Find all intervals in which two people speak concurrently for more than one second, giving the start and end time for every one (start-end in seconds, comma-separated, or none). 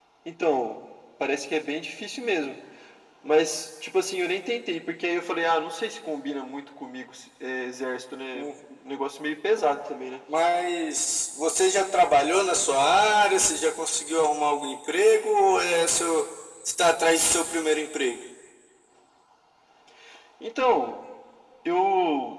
none